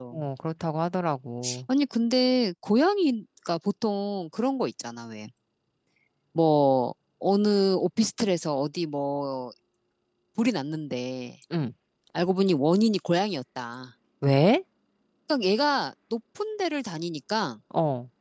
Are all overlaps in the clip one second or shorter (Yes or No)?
Yes